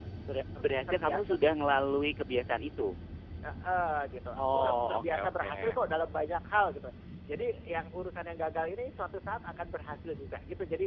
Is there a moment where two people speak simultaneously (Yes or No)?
Yes